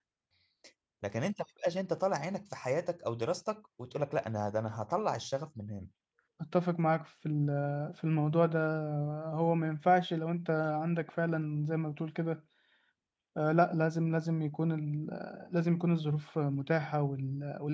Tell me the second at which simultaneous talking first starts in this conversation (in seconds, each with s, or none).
none